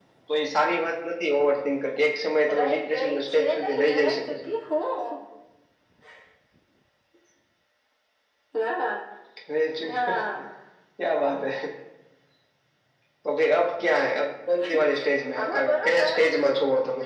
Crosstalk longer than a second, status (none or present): present